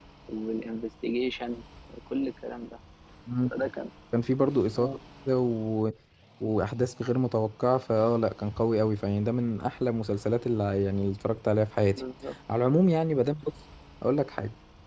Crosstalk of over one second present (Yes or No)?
No